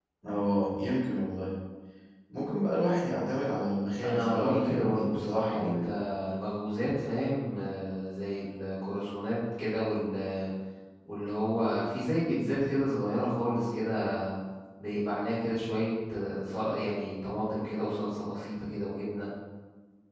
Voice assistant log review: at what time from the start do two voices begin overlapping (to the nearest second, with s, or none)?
4 s